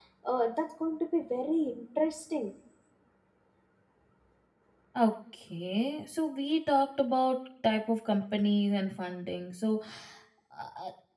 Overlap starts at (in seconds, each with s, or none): none